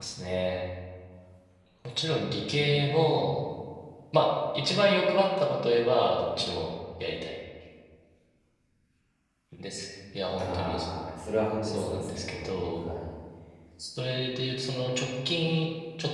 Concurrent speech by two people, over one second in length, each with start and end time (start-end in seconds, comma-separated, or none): 11.6-12.9